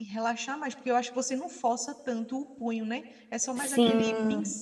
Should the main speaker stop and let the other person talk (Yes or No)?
Yes